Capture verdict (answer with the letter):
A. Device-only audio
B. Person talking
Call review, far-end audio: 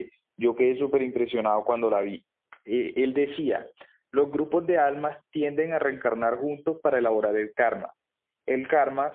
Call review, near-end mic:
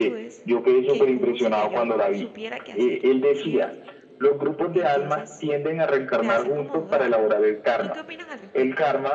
B